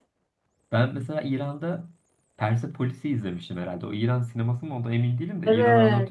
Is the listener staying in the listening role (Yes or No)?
No